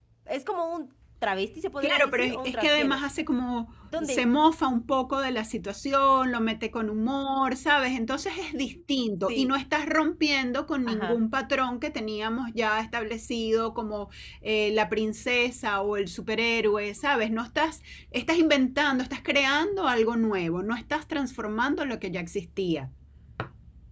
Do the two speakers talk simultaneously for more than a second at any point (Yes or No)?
Yes